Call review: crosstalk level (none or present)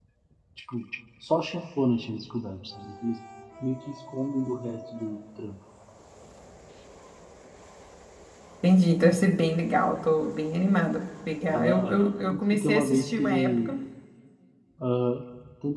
present